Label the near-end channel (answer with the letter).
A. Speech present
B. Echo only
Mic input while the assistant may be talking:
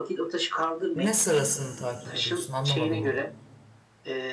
A